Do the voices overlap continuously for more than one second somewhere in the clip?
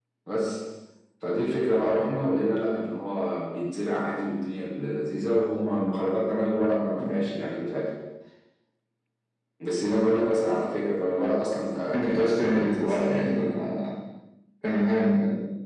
Yes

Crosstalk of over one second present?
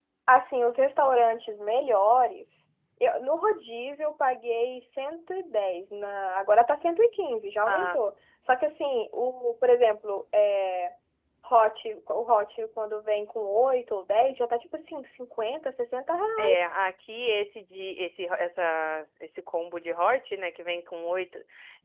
No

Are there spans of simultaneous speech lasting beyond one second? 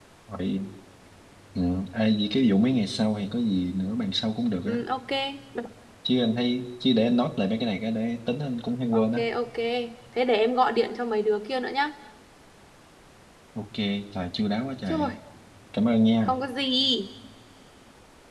No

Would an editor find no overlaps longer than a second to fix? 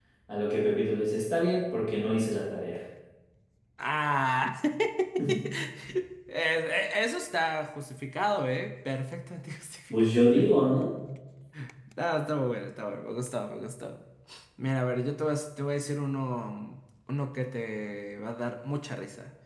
Yes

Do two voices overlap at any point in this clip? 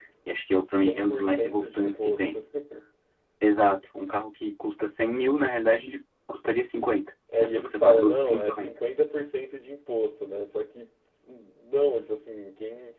Yes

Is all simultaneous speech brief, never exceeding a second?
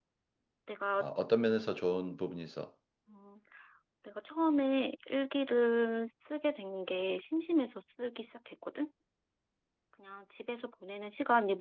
Yes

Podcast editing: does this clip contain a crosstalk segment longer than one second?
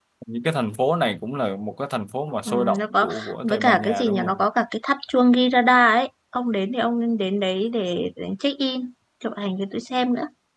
Yes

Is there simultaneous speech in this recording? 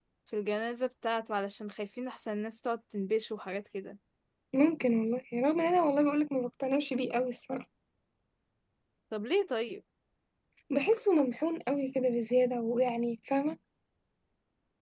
No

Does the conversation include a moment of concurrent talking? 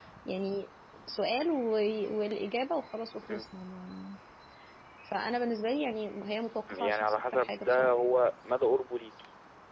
Yes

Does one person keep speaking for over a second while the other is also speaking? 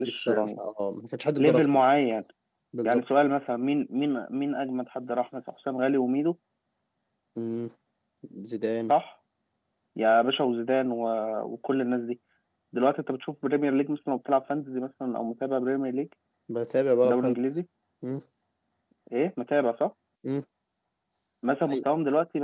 No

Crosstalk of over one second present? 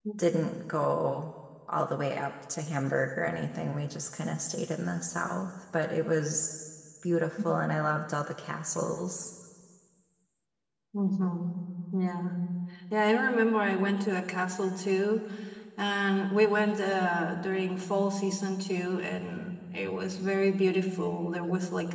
No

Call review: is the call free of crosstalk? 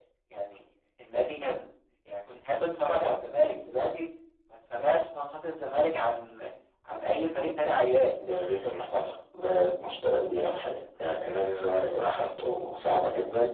Yes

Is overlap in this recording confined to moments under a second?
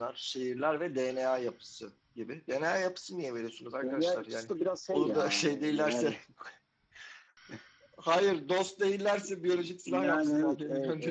No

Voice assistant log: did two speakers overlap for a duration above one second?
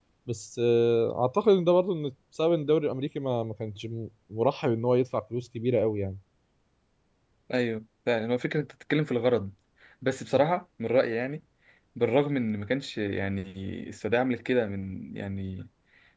No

